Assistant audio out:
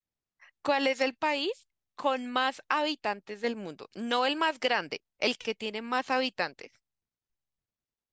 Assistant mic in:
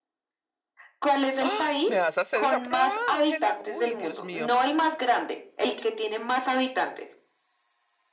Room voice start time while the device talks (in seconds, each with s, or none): 1.4 s